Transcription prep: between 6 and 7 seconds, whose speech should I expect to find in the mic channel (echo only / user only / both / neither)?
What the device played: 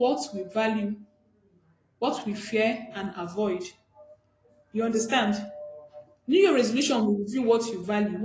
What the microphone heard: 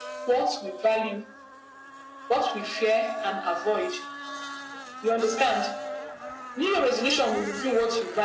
echo only